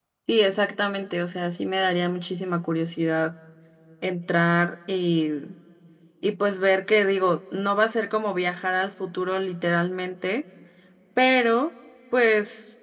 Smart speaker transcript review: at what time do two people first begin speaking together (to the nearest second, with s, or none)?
none